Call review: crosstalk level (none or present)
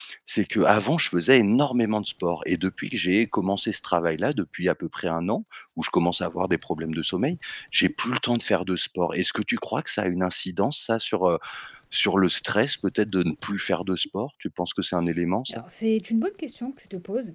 none